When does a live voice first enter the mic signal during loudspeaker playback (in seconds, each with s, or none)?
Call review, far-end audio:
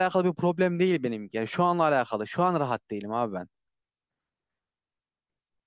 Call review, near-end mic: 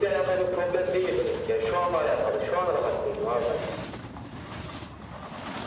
none